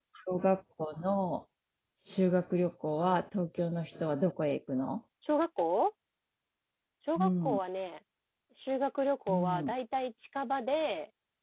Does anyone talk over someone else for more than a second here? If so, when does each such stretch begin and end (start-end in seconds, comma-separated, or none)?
none